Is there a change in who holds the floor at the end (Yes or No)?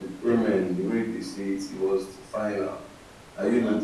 No